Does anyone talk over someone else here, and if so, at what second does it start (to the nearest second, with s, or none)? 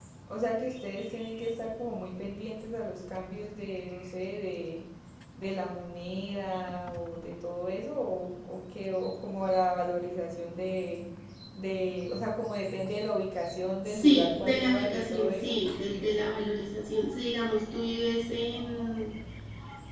14 s